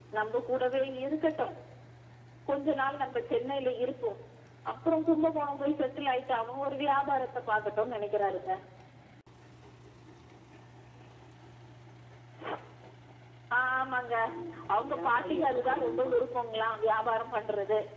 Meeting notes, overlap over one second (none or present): present